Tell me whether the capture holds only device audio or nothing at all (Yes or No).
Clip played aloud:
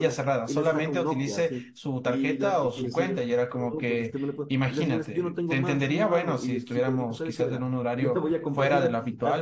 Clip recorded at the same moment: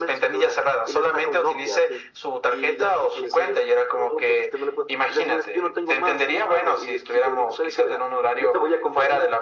Yes